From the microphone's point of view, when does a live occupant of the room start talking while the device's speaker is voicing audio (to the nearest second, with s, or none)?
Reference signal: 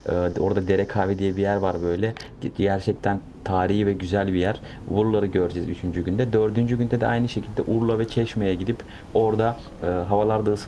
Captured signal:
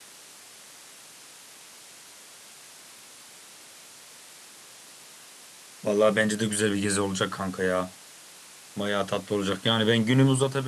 6 s